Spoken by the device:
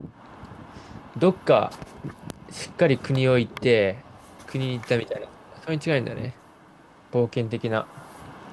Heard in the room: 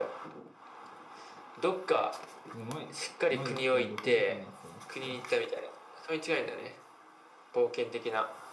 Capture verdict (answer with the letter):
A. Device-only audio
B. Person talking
B